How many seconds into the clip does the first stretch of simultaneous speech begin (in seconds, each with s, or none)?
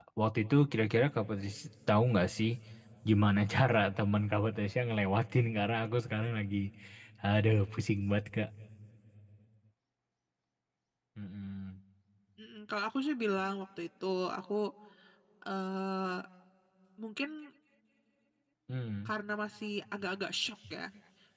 none